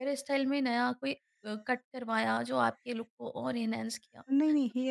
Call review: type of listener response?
taking over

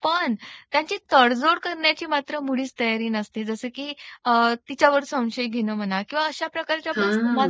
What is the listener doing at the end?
listening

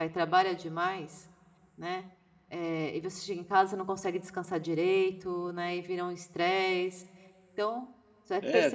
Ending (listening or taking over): taking over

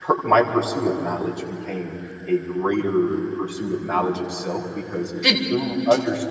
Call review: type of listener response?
listening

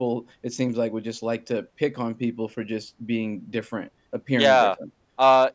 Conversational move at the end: taking over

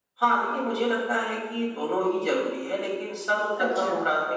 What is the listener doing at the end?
listening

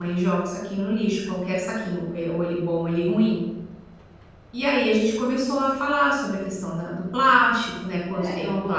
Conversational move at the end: taking over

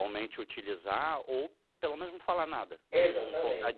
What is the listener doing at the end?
taking over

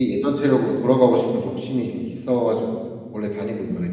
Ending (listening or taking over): taking over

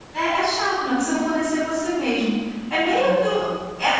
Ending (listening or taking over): listening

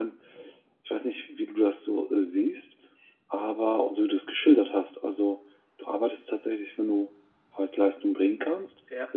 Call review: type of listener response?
listening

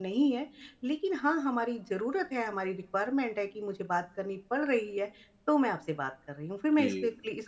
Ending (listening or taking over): taking over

